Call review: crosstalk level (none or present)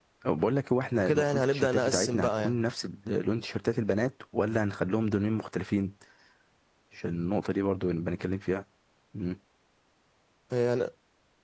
present